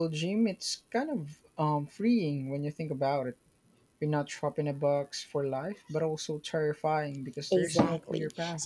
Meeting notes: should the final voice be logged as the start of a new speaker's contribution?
Yes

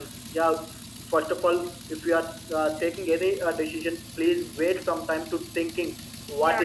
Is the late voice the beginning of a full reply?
Yes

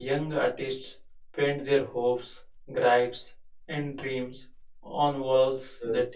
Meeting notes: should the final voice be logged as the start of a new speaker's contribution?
No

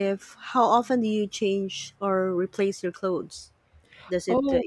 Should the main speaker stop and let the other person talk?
No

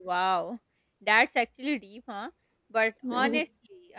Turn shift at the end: No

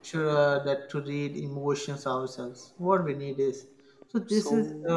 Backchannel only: Yes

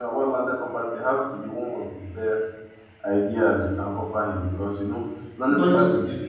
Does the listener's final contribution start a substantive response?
No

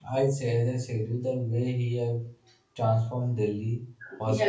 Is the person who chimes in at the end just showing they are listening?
Yes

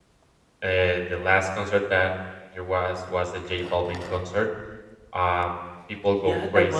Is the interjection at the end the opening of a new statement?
Yes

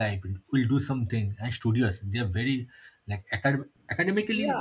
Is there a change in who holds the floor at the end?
Yes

